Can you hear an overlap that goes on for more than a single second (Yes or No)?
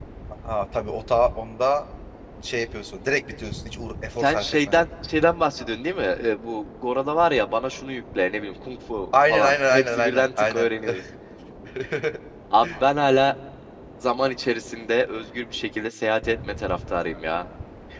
Yes